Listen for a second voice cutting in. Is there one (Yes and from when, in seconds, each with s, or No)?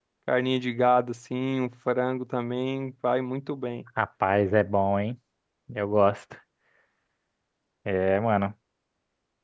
No